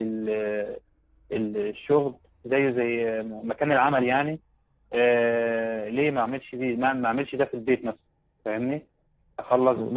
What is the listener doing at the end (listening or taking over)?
taking over